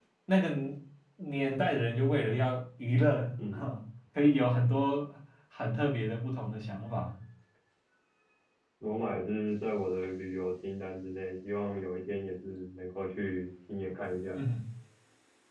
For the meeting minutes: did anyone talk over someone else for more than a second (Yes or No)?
No